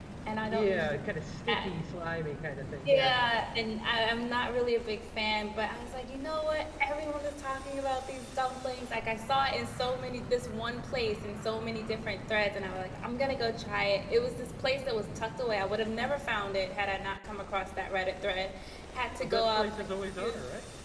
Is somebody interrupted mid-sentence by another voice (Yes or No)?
Yes